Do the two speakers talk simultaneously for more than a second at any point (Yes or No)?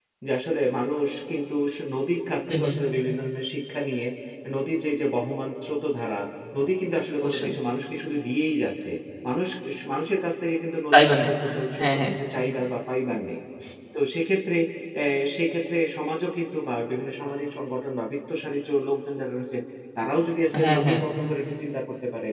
No